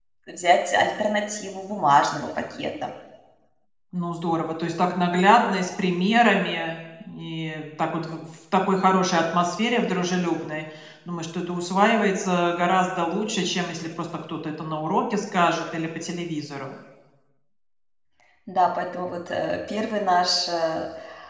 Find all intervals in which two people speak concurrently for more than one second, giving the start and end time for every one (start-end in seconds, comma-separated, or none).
none